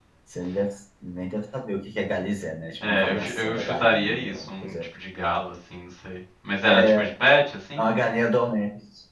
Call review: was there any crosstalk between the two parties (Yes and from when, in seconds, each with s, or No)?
Yes, from 2.9 s